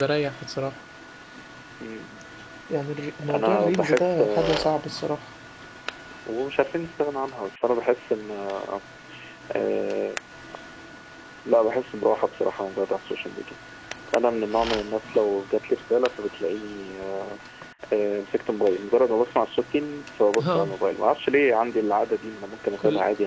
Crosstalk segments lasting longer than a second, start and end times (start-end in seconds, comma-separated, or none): 3.3-4.8